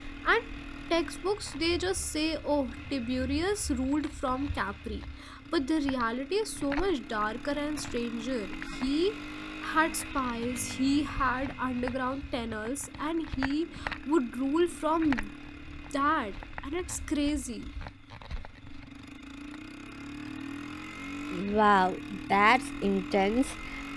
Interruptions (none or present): none